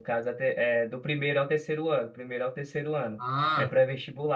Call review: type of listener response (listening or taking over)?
listening